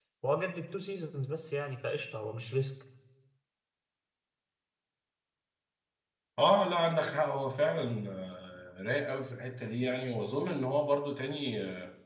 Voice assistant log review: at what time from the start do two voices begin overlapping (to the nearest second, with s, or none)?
none